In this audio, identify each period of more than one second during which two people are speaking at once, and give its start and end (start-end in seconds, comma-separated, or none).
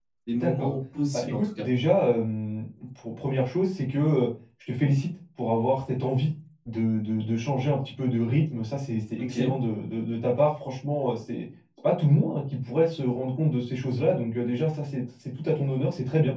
none